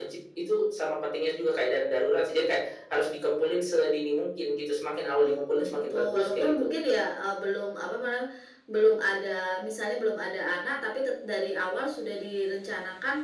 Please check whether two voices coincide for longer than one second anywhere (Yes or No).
Yes